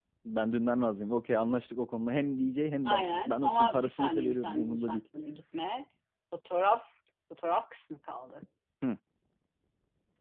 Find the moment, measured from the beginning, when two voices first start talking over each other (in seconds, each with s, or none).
2.9 s